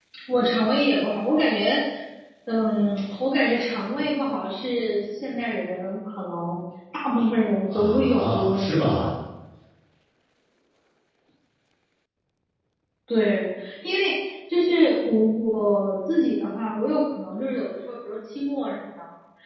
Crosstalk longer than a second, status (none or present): present